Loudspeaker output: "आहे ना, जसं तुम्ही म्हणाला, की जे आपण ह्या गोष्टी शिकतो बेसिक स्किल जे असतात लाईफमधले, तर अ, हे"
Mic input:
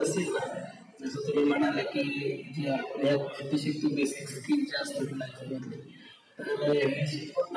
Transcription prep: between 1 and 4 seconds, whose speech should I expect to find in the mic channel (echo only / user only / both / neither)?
echo only